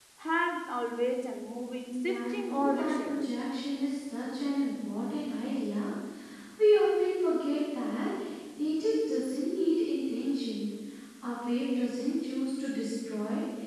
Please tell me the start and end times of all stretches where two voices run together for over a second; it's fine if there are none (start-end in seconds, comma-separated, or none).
2.0-3.3